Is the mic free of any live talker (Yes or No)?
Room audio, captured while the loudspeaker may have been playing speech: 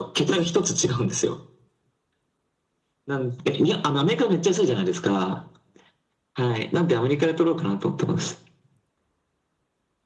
Yes